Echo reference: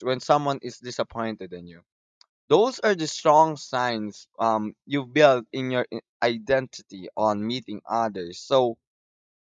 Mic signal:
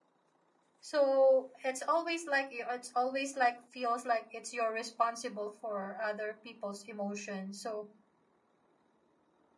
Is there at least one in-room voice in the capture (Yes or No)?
Yes